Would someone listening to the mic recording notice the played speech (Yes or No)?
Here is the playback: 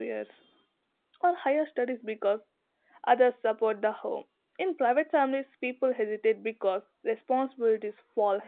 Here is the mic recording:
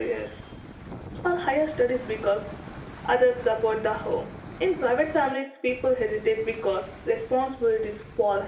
Yes